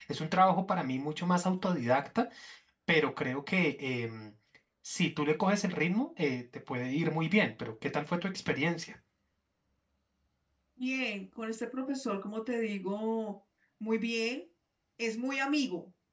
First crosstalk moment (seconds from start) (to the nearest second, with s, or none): none